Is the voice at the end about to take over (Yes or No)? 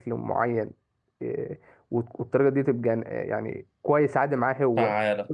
No